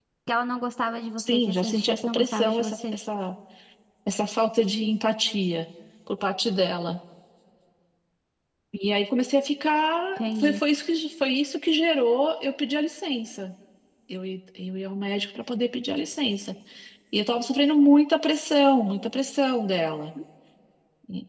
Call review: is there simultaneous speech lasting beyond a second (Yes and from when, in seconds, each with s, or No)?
Yes, from 1.2 s